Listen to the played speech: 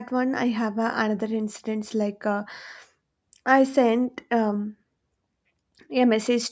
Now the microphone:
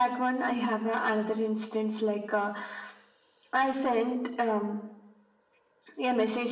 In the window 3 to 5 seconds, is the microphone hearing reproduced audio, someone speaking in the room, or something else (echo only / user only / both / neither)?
echo only